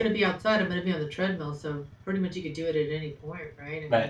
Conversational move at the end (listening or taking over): taking over